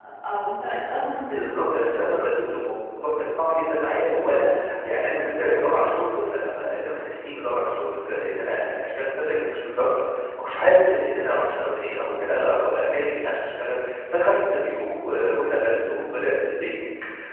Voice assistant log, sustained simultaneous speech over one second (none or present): none